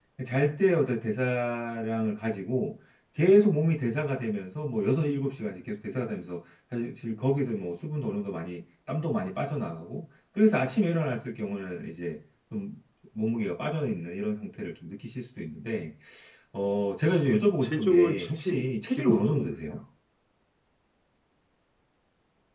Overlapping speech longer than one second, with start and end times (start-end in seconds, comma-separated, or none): 17.6-19.6